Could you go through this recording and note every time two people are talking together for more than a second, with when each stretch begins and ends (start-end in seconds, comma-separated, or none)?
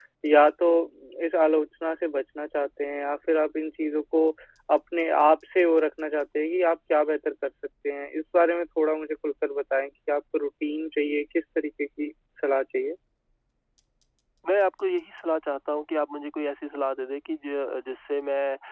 none